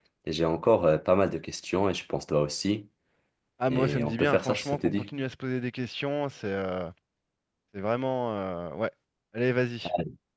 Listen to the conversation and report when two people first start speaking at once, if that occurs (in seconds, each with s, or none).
3.7 s